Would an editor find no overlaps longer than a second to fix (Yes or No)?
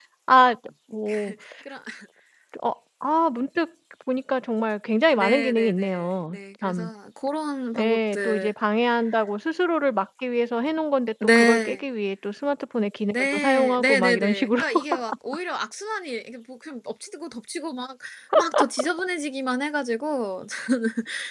No